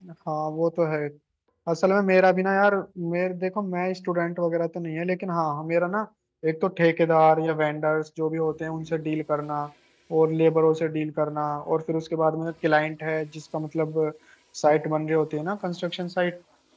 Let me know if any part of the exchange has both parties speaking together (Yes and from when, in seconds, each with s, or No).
No